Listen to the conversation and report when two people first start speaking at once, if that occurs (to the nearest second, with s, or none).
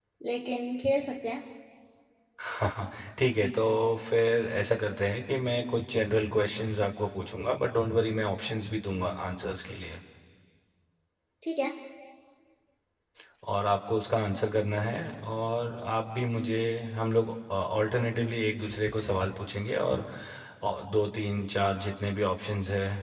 none